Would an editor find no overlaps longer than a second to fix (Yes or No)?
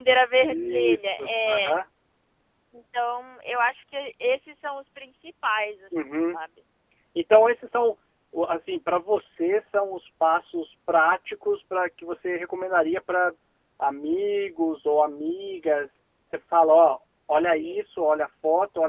No